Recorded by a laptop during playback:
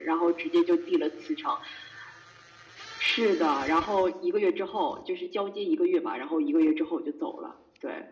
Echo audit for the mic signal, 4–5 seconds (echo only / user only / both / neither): echo only